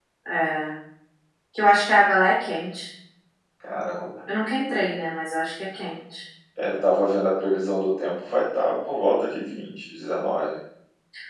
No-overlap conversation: Yes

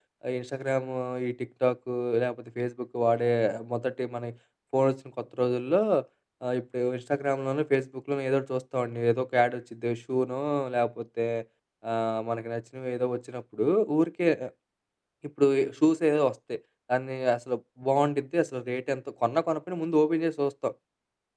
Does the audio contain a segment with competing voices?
No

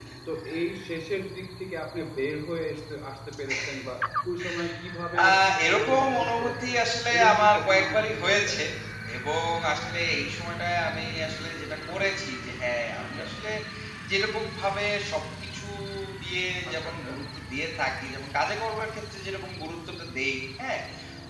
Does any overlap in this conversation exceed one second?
Yes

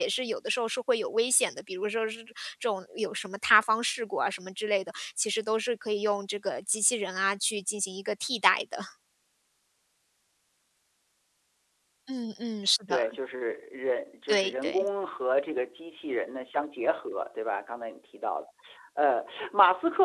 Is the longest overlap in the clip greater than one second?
No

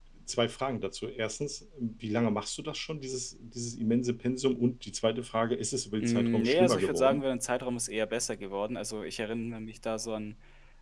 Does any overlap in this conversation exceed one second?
Yes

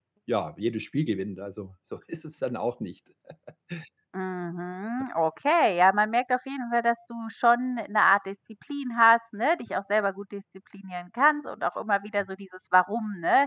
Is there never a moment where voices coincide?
Yes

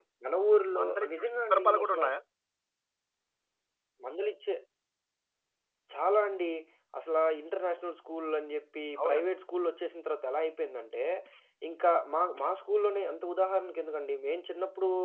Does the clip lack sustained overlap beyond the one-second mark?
No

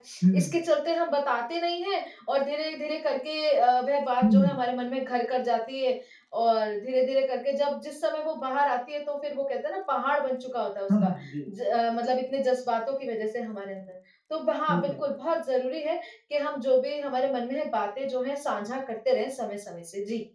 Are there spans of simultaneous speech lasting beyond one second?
No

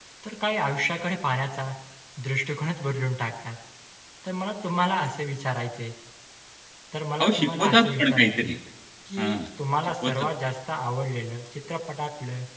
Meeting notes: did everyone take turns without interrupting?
No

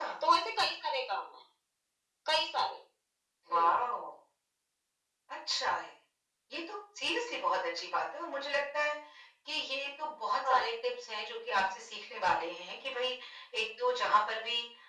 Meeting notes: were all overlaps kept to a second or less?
Yes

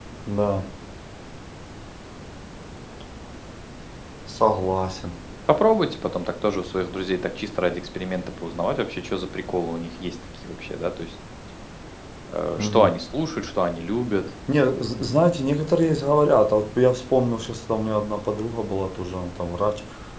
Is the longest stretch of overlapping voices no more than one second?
Yes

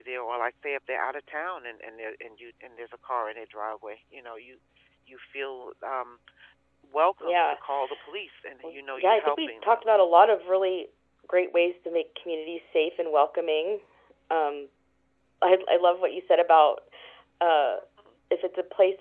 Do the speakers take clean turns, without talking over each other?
No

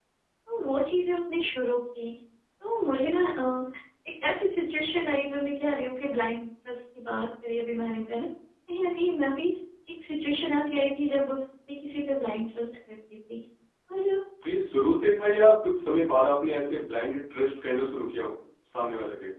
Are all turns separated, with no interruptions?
Yes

